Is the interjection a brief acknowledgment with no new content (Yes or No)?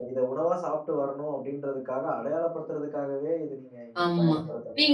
No